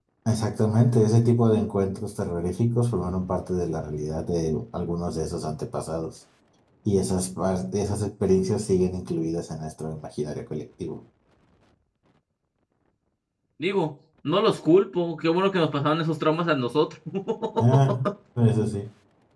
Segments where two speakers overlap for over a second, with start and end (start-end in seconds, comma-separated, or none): none